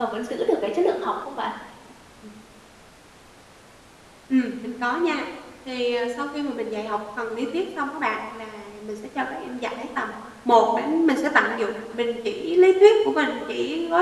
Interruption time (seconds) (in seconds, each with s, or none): none